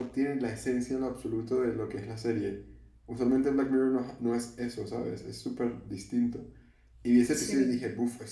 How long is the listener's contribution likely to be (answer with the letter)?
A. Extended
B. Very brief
B